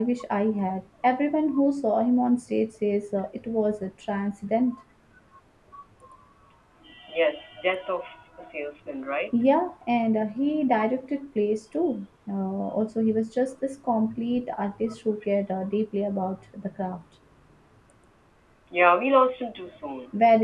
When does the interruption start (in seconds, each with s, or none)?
none